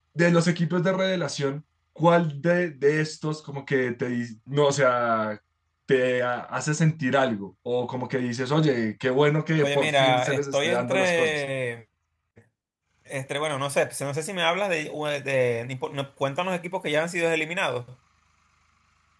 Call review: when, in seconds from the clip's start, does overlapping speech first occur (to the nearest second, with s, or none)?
10 s